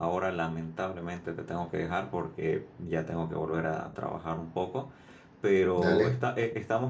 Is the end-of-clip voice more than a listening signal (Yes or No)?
No